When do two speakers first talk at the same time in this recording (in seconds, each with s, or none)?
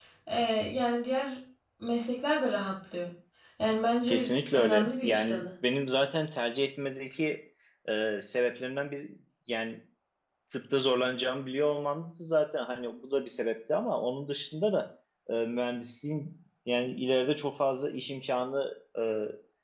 4.1 s